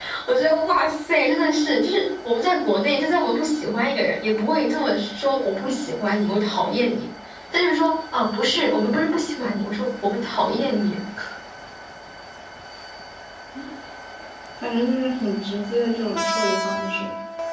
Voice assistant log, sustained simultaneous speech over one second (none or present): none